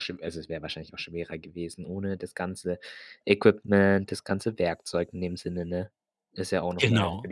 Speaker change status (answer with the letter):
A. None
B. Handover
B